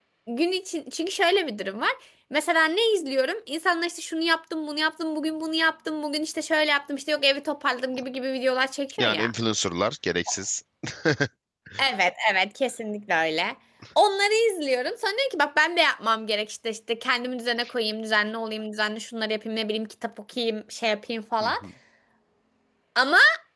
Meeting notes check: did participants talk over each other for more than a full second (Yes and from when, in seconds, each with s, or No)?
No